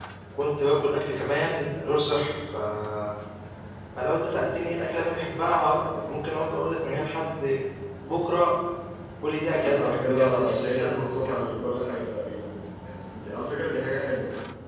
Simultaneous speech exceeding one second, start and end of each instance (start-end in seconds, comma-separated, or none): 9.6-11.5